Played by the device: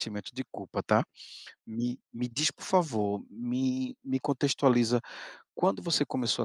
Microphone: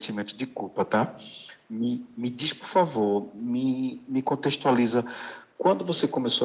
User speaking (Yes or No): No